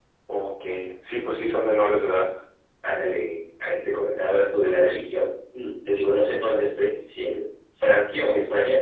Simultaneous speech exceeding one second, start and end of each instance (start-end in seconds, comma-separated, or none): none